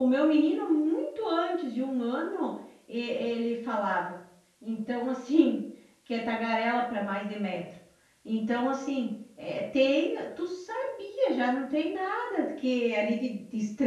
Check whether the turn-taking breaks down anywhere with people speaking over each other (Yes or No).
No